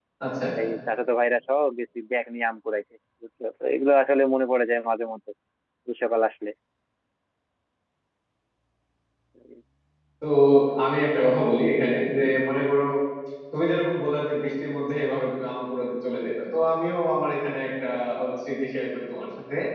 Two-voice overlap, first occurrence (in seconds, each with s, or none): none